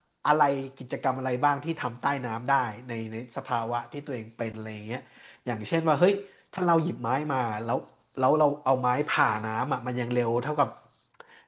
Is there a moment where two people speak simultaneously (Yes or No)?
No